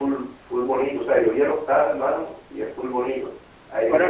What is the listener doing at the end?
listening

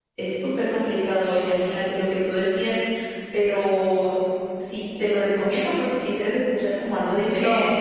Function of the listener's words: taking over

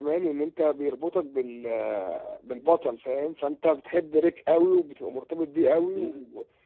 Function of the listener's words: taking over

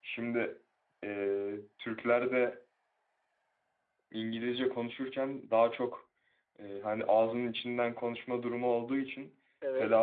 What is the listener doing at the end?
listening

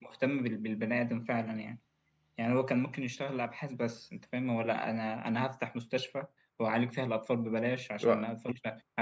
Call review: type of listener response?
listening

